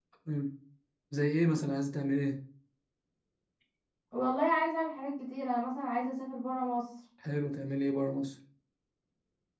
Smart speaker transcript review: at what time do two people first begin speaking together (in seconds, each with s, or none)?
none